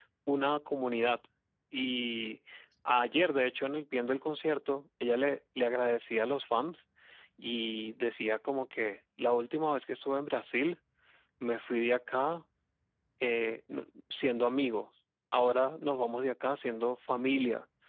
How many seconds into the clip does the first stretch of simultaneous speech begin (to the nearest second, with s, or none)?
none